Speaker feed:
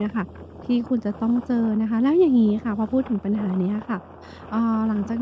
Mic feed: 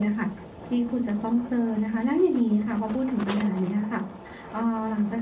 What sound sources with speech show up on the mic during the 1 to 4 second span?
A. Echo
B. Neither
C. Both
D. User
A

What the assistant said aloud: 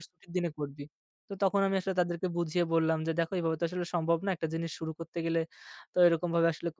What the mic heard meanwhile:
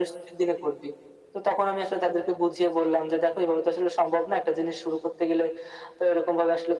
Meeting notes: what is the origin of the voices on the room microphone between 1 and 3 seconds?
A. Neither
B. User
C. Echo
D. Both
C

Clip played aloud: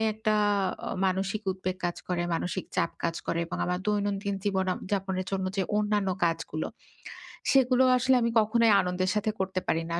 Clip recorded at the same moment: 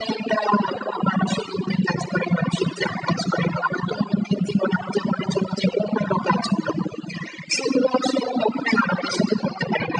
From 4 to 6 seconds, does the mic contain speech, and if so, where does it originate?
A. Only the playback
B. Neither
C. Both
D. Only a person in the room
A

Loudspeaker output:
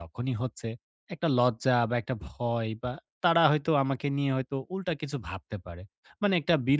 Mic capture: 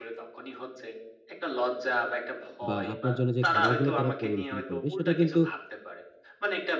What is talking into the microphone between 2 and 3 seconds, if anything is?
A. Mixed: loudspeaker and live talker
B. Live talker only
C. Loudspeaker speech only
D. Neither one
A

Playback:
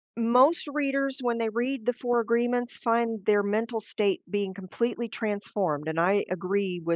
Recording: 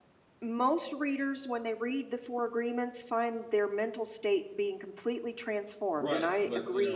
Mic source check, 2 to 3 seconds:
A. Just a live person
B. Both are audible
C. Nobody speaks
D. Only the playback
D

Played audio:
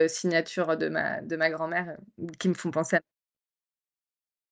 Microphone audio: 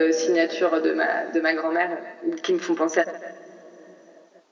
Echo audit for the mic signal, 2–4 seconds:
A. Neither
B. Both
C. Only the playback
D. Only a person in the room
C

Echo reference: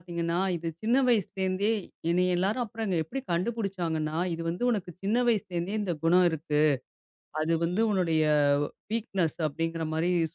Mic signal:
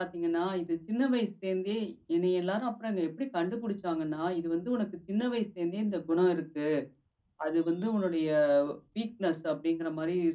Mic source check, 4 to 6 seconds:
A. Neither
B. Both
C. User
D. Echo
D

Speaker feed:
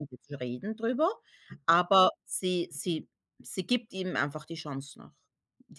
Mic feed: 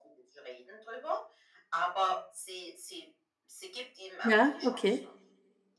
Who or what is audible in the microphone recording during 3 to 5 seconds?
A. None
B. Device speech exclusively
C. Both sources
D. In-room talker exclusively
C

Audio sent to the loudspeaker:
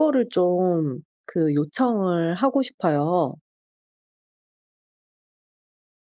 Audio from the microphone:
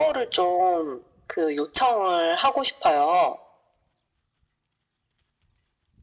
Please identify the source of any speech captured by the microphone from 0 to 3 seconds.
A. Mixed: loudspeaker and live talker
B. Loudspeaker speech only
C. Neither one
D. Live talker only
B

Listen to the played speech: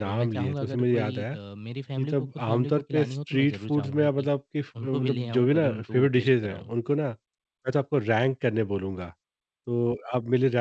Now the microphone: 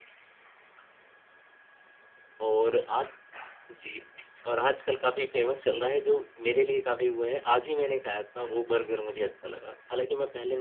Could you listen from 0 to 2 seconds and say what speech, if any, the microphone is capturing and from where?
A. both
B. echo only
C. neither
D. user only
C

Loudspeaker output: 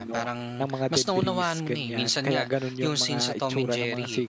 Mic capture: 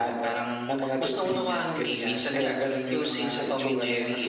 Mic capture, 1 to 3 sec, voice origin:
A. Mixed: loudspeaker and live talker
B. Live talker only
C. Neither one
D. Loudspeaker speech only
D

